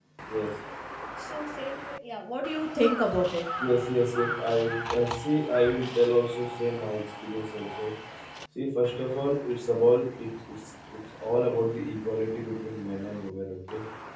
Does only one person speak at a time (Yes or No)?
Yes